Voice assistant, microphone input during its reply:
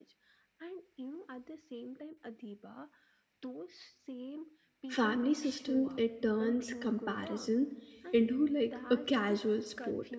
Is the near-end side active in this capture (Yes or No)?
Yes